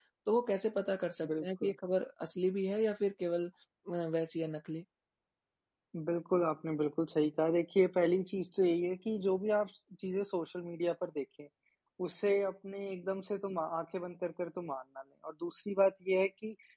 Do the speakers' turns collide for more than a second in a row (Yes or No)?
No